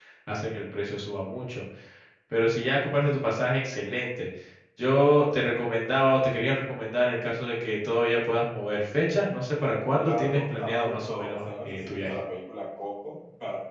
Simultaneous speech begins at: 9.9 s

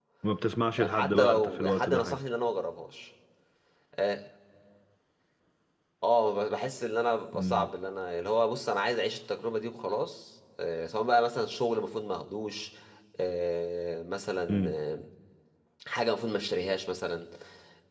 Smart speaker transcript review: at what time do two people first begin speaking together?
0.8 s

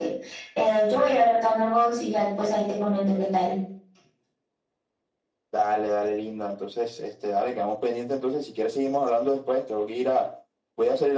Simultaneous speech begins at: none

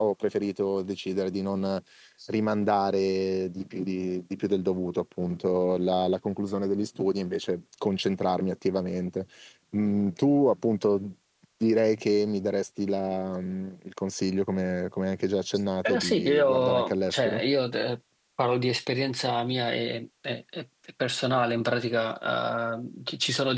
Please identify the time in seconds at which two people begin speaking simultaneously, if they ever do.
15.8 s

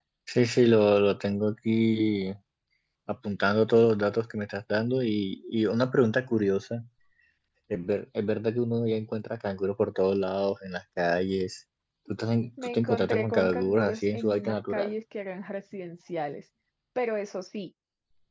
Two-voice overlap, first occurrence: 12.6 s

